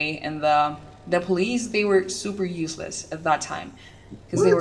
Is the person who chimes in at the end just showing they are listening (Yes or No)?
Yes